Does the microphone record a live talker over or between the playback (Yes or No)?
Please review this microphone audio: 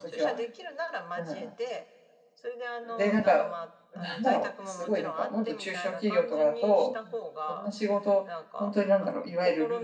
Yes